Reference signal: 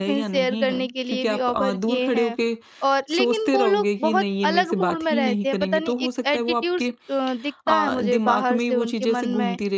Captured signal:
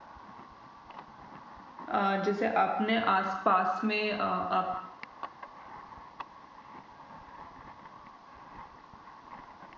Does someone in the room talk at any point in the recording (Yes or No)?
Yes